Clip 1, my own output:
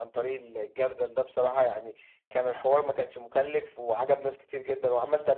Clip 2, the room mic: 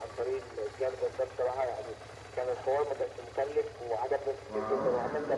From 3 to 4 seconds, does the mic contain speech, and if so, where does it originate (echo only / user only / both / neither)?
echo only